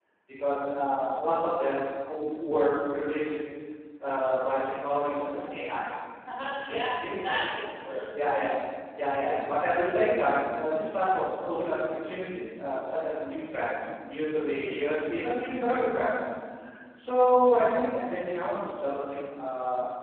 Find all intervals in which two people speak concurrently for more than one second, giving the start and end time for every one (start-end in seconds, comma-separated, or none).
none